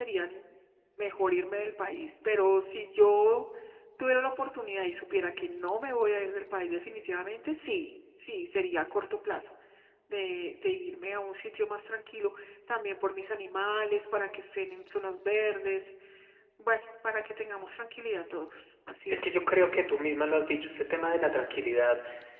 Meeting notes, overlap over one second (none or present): none